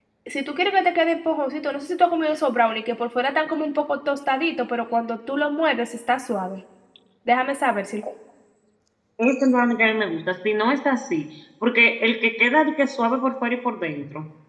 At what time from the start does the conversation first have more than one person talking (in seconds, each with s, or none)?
none